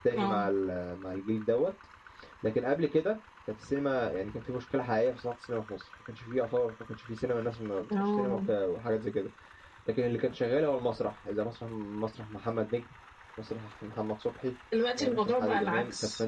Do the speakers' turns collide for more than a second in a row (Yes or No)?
Yes